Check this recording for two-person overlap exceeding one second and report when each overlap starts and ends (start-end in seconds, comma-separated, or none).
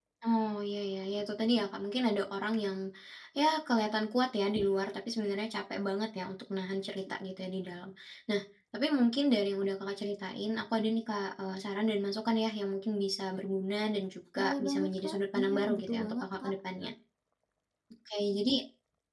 14.4-16.5